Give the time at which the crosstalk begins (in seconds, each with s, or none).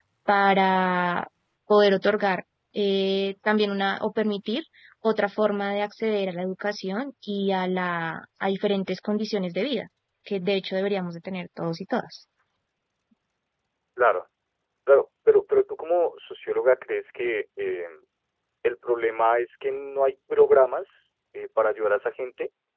none